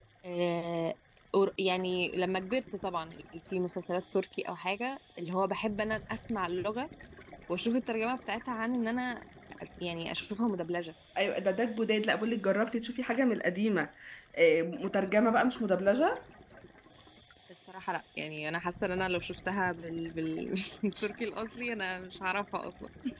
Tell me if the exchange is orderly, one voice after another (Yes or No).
Yes